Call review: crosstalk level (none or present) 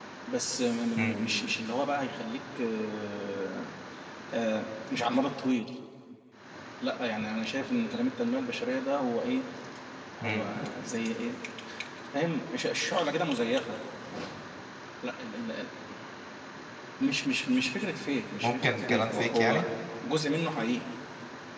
present